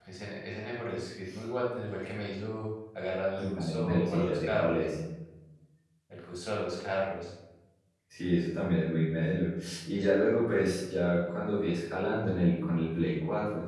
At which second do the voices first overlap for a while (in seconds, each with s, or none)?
3.4 s